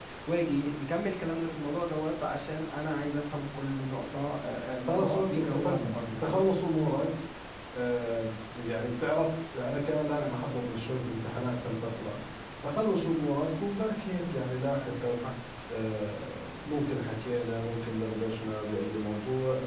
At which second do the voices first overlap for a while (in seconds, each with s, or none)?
4.9 s